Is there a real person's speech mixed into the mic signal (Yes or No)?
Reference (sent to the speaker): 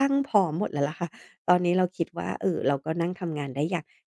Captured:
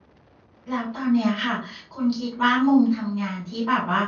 Yes